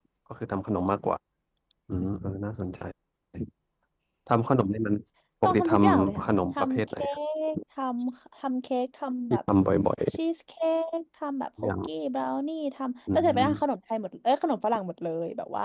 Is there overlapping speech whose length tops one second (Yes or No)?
Yes